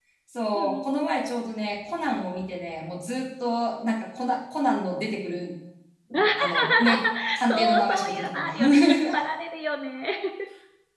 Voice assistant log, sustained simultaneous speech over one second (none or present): present